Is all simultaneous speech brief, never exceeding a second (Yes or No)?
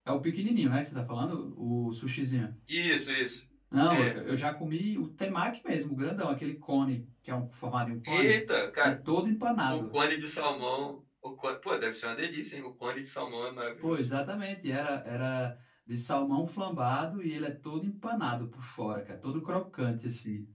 Yes